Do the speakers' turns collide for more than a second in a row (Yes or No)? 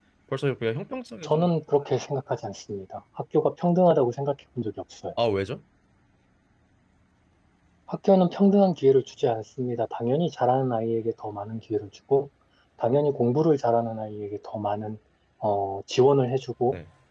No